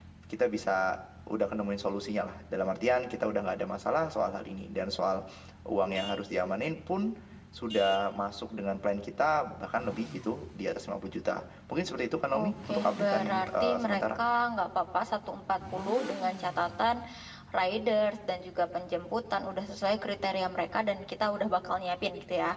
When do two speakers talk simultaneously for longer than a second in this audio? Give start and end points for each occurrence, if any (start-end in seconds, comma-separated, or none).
12.4-14.2